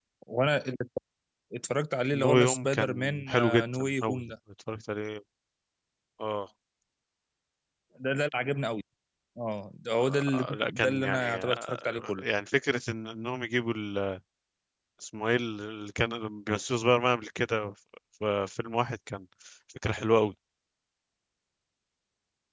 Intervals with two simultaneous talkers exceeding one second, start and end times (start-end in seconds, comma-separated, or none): 2.1-4.2, 10.0-12.2